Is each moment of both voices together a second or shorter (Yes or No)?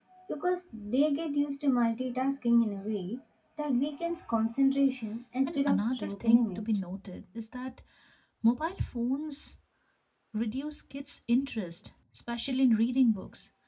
No